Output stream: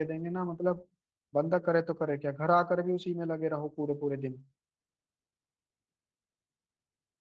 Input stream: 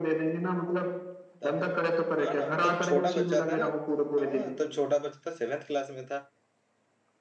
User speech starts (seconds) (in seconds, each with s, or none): 1.4 s